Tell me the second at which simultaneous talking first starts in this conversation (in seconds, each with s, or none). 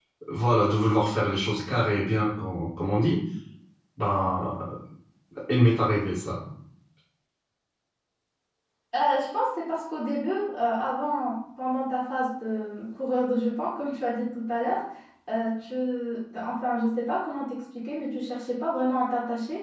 none